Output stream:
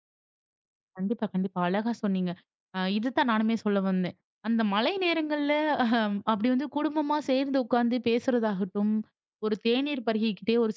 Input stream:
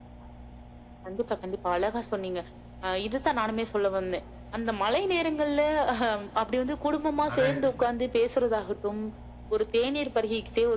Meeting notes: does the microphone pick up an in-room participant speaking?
Yes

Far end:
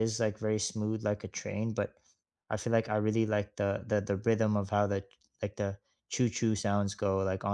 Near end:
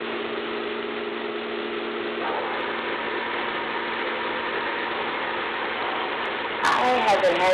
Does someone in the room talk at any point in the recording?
Yes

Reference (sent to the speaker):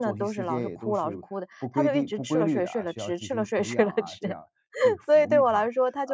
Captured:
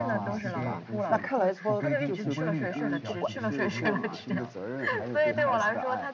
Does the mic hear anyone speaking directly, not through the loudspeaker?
Yes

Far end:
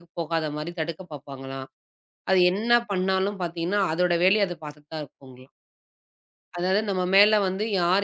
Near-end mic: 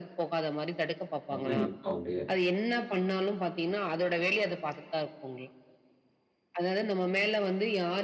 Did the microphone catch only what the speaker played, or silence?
No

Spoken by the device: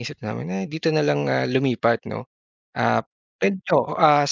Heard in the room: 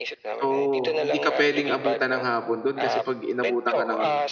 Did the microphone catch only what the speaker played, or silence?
No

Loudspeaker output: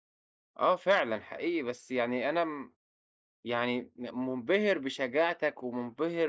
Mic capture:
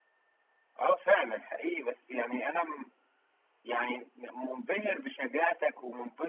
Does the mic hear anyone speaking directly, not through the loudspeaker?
No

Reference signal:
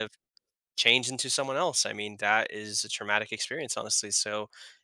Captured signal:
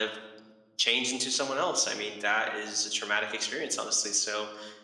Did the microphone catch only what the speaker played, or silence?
Yes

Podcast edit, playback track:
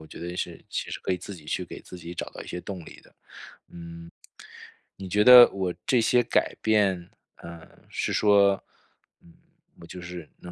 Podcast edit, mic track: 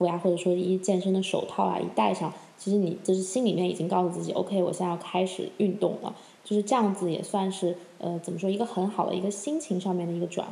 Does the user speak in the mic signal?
Yes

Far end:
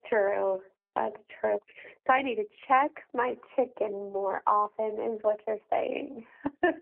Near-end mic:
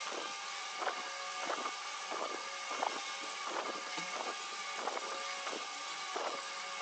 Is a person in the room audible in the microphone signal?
No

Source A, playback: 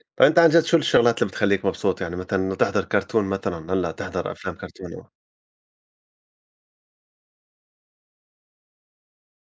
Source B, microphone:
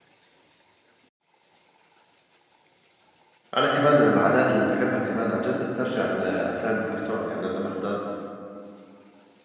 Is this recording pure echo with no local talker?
No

